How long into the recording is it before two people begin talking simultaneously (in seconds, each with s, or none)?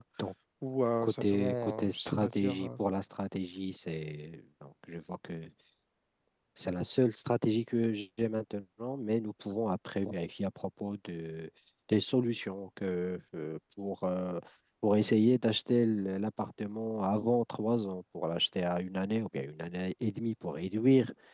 1.0 s